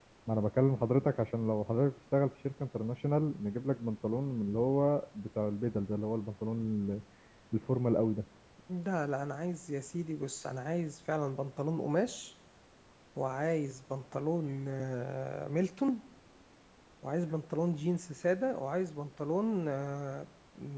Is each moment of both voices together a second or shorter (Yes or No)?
Yes